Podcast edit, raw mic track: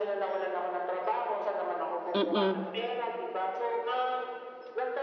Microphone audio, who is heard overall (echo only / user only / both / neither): both